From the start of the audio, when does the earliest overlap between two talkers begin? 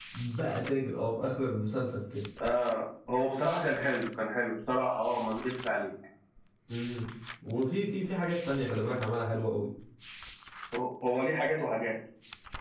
none

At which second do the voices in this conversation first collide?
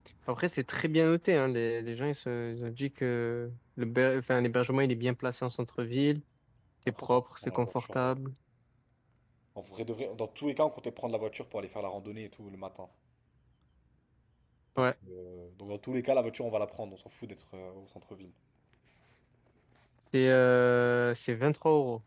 7 s

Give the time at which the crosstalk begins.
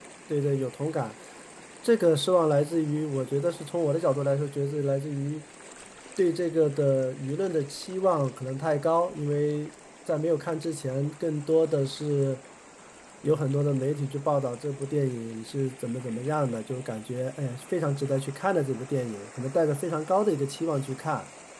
none

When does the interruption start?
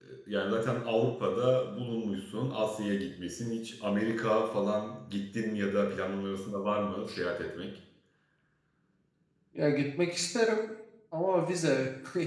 none

